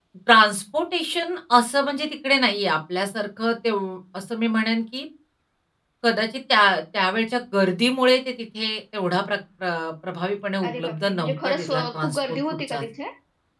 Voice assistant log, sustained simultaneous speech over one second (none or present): present